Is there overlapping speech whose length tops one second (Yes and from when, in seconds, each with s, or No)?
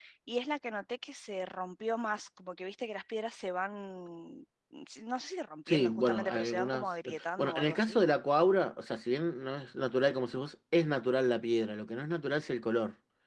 Yes, from 5.7 s